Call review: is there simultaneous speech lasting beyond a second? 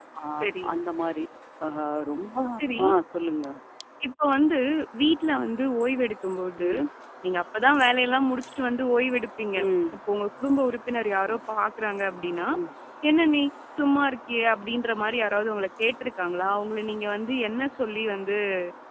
No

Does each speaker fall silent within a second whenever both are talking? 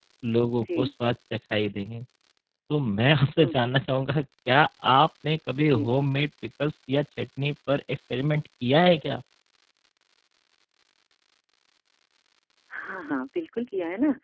Yes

